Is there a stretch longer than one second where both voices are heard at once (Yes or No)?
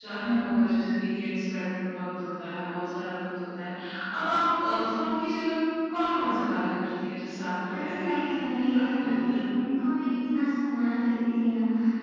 Yes